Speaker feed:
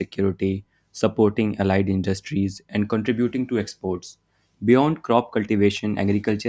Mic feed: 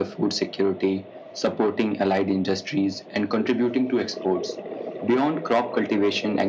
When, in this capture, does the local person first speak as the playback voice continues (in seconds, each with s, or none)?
none